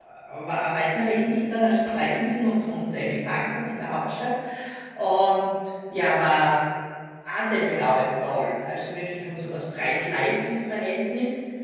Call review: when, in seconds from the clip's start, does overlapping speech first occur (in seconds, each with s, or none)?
none